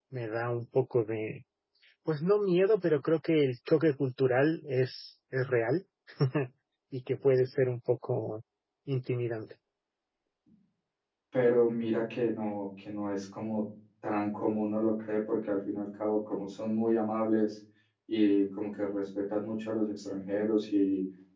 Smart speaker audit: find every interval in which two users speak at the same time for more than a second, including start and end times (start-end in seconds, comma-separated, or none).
none